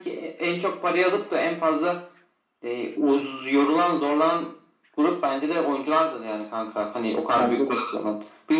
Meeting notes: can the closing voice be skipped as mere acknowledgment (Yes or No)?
Yes